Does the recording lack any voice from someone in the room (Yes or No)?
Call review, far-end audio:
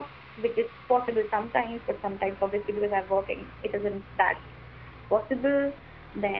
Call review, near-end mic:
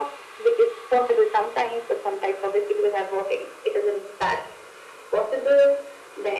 Yes